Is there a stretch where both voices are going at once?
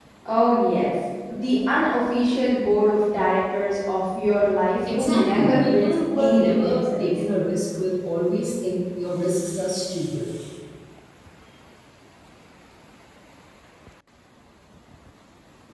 Yes, from 4.9 s

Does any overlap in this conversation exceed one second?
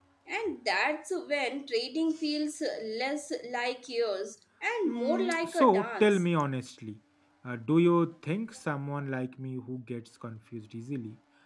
Yes, from 4.8 s

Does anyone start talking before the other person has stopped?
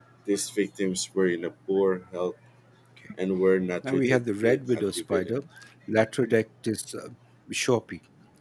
Yes, from 3.9 s

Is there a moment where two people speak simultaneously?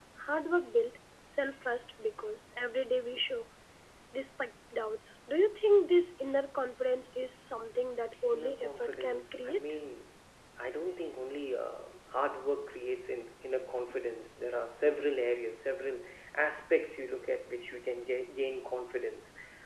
Yes, from 8.3 s

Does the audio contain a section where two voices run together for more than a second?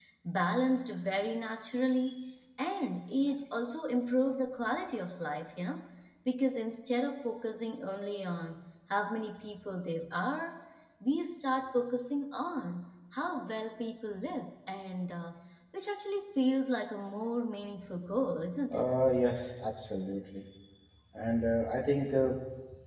No

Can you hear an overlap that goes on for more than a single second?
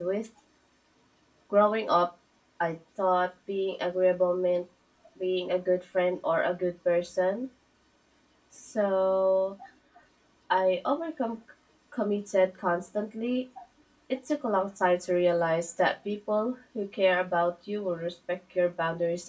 No

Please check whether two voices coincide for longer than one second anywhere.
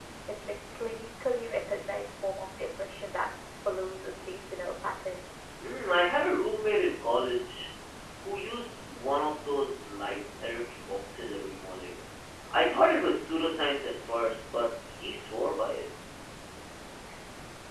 No

